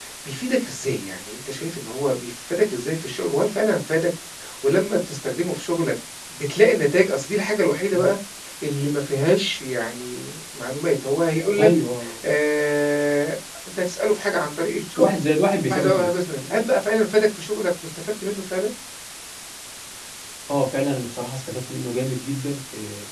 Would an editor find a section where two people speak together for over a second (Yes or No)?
No